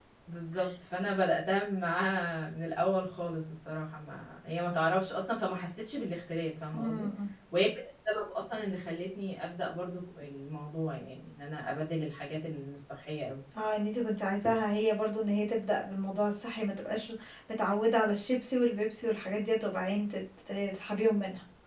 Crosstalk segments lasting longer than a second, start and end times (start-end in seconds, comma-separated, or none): none